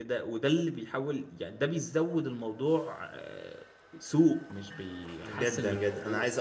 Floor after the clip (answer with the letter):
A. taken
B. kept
A